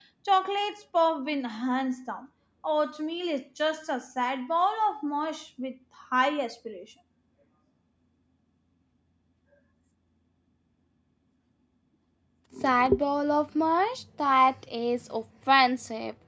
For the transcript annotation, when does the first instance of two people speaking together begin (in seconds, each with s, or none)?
none